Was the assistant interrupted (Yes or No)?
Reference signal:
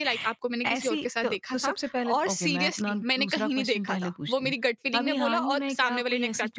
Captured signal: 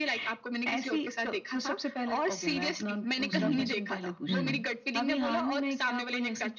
Yes